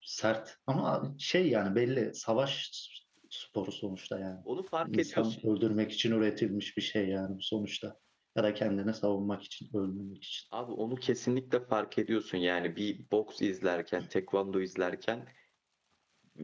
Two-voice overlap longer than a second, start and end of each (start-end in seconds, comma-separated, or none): none